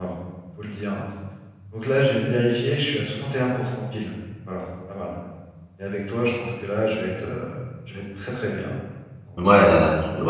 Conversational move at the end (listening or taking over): taking over